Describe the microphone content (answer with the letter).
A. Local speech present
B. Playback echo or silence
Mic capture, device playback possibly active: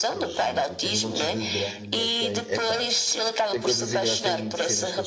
A